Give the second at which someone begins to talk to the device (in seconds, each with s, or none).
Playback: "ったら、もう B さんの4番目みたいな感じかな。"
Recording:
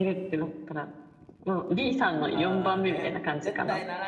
2.3 s